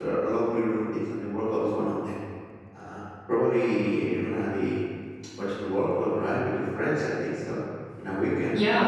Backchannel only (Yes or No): No